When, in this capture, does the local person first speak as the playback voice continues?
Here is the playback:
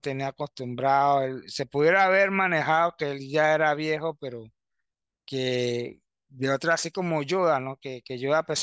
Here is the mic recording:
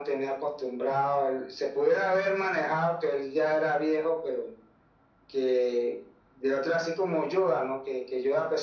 none

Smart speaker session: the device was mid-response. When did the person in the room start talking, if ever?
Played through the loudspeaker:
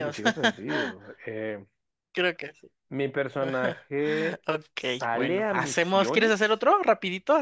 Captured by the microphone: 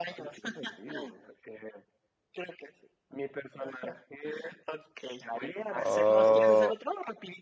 5.7 s

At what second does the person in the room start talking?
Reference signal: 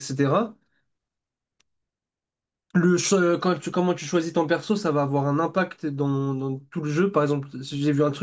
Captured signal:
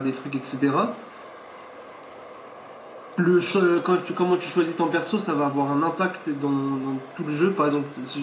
none

